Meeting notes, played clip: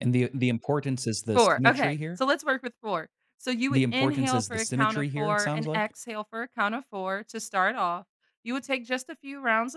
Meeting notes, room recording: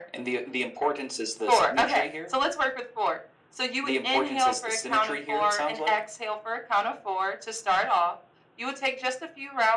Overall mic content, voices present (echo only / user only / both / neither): echo only